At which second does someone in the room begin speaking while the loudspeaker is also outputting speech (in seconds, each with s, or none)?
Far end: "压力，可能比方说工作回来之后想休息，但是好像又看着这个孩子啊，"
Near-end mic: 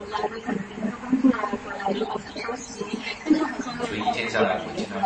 3.6 s